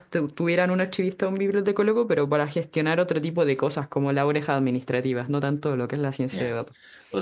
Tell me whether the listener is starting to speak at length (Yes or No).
Yes